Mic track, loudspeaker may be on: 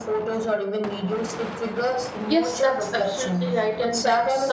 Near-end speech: present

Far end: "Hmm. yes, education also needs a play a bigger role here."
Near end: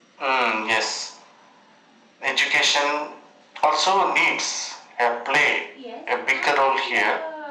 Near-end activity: present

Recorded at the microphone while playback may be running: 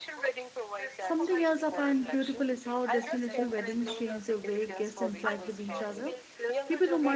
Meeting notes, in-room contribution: present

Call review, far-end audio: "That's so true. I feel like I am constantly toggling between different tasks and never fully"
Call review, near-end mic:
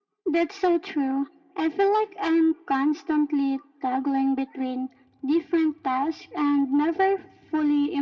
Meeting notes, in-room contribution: none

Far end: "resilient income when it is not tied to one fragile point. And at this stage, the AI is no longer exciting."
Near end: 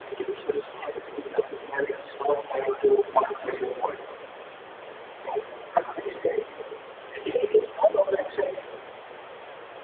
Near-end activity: none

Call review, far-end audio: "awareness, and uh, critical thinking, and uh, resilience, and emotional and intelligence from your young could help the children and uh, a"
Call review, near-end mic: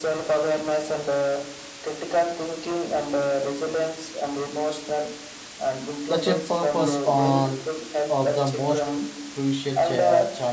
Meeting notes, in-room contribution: present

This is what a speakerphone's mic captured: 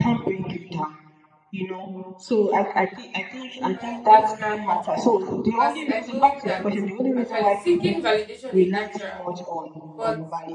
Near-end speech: present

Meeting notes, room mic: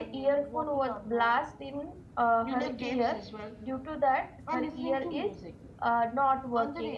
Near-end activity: present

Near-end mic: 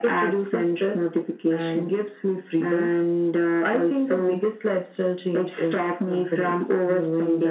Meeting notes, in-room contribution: none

